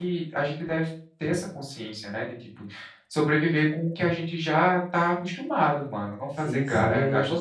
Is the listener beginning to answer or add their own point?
Yes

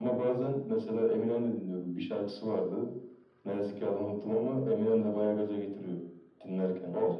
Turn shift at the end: Yes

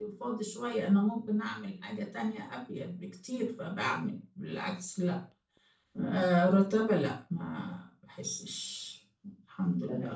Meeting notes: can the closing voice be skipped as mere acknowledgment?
No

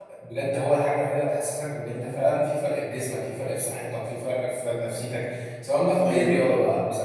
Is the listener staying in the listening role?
Yes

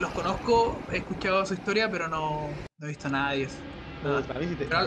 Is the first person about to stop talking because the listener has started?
Yes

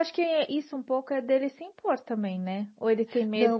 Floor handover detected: Yes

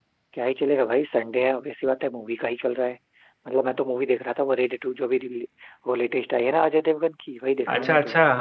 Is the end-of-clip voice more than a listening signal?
Yes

